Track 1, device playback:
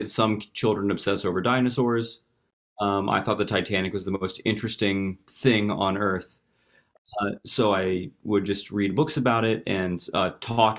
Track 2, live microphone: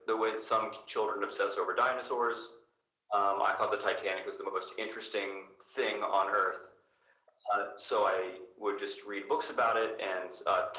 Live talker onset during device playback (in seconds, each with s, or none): none